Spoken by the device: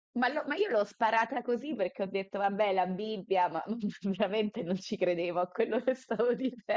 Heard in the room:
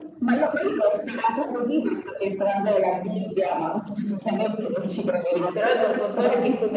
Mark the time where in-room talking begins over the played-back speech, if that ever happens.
5.3 s

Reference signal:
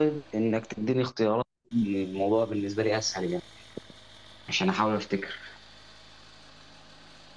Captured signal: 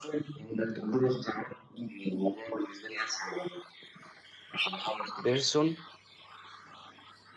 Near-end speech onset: 5.2 s

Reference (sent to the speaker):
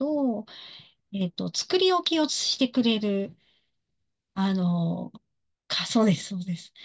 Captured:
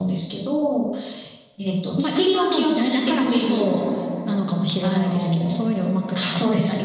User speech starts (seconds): 2.0 s

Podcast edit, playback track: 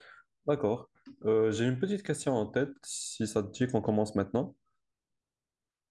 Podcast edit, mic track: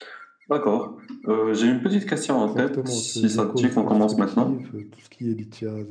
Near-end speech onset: 2.5 s

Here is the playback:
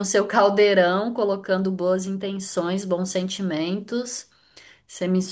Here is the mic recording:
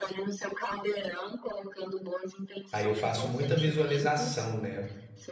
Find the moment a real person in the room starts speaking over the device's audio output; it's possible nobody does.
2.7 s

